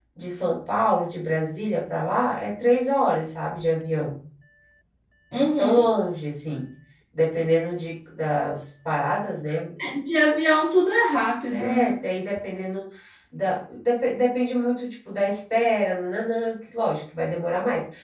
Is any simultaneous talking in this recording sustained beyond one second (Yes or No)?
No